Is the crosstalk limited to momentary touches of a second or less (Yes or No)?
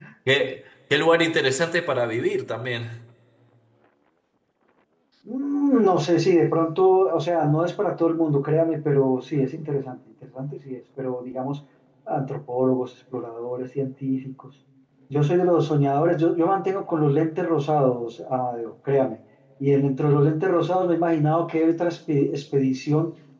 Yes